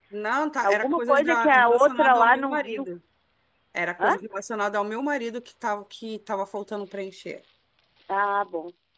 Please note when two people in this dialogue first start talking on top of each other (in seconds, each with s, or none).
0.6 s